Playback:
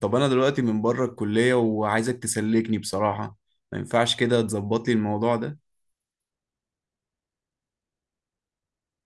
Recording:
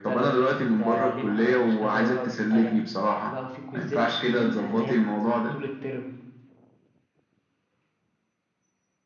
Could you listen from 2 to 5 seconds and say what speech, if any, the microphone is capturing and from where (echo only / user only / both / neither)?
both